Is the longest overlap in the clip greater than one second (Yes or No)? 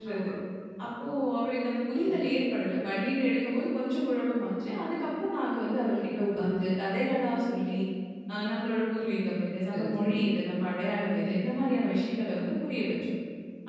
No